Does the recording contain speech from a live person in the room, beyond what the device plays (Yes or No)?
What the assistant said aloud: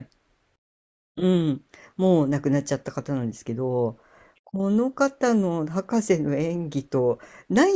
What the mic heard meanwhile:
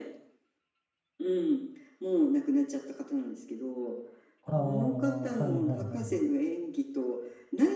Yes